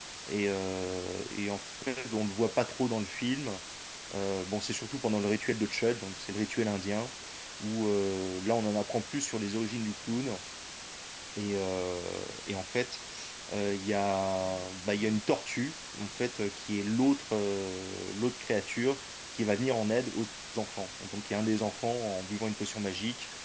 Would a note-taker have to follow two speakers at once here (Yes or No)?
No